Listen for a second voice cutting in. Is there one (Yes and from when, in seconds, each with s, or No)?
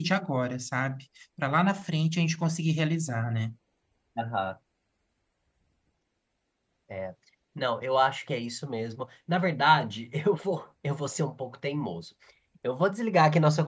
No